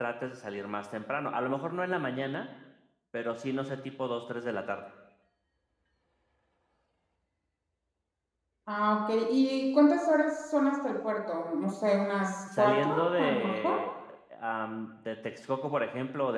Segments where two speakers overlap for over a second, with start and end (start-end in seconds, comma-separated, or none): 12.6-13.8